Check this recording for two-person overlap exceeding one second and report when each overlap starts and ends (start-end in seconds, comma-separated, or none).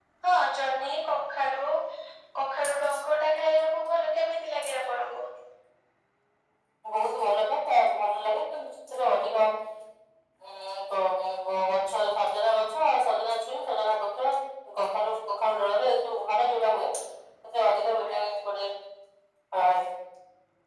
none